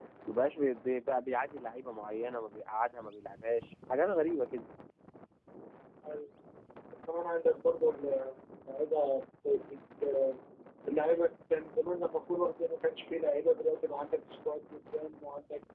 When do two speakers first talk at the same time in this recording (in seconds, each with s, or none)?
none